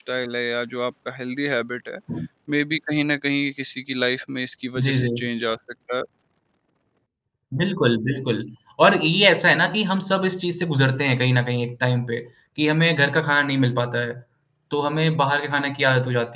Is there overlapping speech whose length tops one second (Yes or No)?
No